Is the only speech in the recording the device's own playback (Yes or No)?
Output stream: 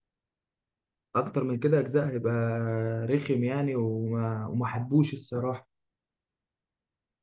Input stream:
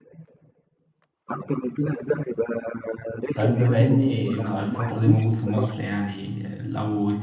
No